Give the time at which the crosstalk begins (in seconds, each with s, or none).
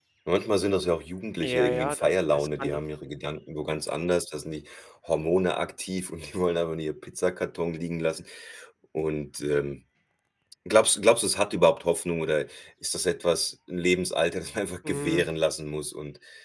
1.4 s